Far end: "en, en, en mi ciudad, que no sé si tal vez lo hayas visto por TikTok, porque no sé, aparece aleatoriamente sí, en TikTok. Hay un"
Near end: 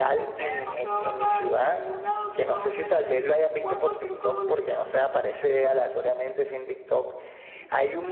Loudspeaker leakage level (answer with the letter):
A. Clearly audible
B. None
A